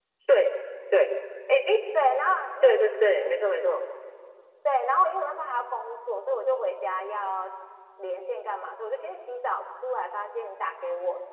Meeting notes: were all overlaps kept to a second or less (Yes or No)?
Yes